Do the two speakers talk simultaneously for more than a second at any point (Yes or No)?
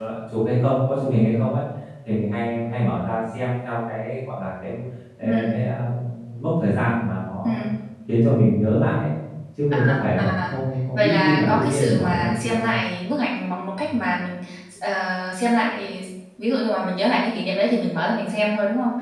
Yes